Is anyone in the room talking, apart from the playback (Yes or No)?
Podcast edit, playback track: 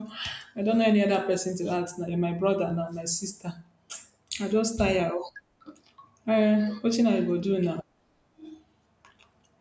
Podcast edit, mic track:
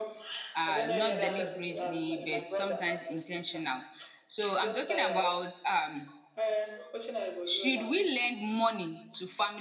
Yes